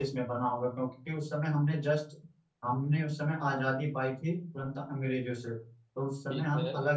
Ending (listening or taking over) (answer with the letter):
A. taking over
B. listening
B